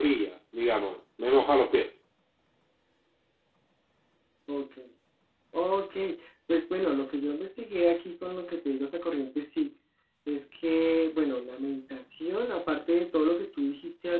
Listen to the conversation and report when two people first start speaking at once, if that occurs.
none

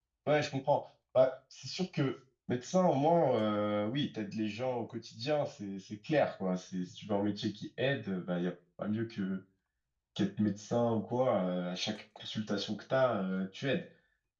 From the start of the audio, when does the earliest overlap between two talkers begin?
none

